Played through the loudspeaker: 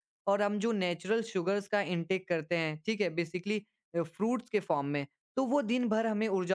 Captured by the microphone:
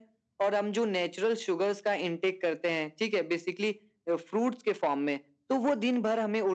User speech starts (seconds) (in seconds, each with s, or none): none